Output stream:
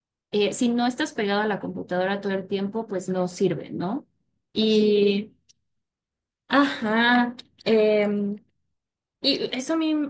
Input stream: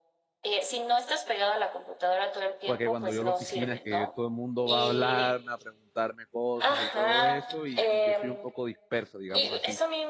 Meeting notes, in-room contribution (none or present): present